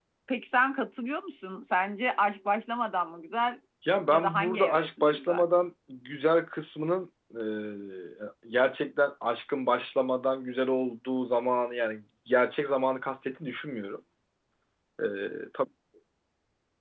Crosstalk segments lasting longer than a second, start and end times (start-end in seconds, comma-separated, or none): 4.1-5.4